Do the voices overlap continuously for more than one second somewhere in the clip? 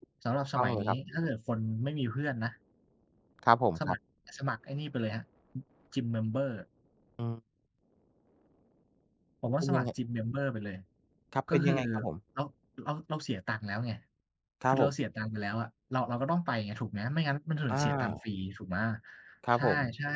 No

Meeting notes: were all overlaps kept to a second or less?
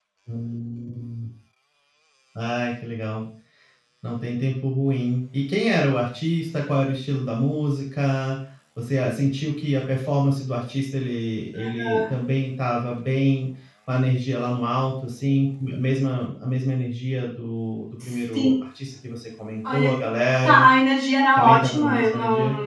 No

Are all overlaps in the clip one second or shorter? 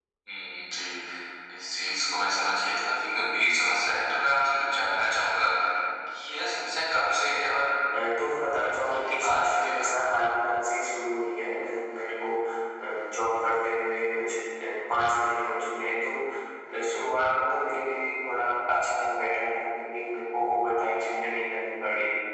No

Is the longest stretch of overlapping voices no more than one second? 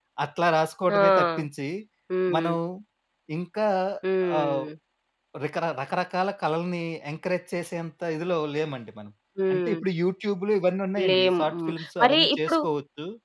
No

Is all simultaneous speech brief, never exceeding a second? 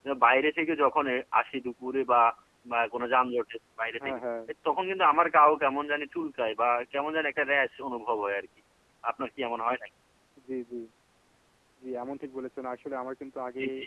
Yes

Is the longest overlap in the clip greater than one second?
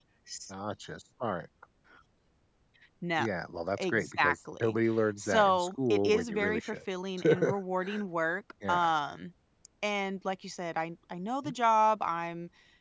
Yes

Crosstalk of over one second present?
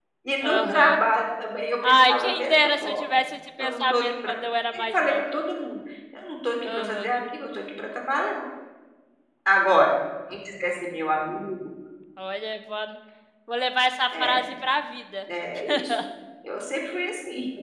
Yes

